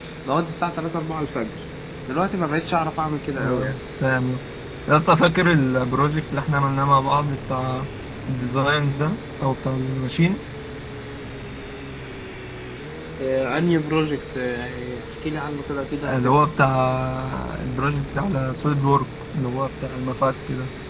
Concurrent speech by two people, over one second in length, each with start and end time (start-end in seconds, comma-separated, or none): none